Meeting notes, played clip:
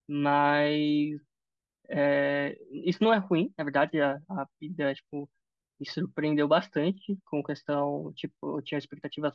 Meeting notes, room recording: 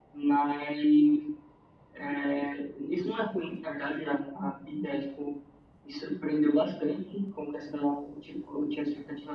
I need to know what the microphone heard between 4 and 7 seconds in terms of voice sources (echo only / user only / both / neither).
echo only